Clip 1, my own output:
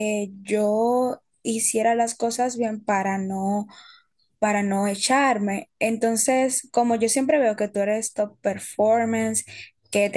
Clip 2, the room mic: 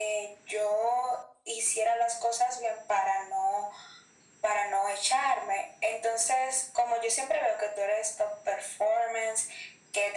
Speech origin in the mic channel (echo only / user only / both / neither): echo only